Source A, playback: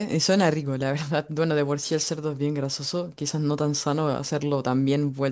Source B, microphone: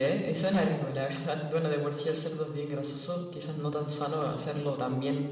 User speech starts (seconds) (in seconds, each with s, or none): none